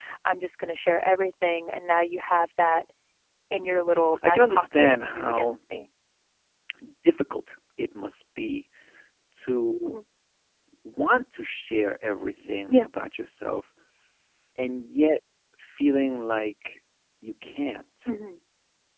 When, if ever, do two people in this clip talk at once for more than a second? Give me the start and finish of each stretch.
4.3-5.5

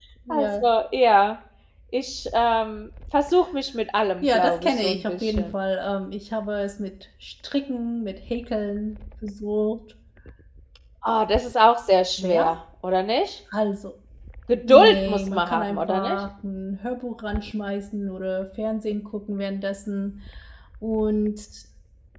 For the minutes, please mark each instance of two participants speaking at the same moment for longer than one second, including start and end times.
4.2-5.5, 14.7-16.2

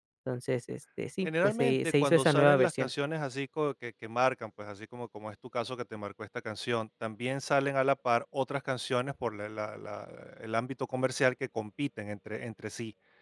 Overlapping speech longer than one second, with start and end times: 1.2-2.9

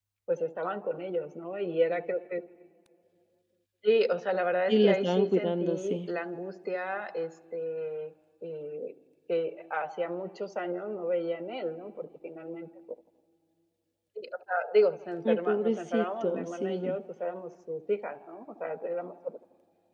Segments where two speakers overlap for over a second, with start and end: 4.7-6.1, 15.2-17.0

